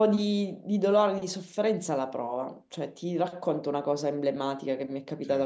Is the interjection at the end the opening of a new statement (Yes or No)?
No